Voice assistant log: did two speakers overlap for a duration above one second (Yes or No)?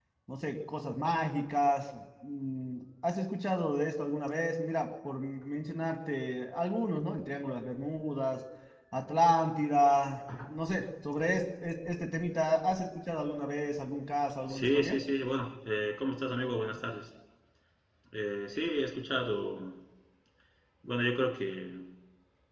No